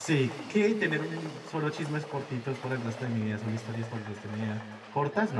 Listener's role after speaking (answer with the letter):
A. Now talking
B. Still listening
B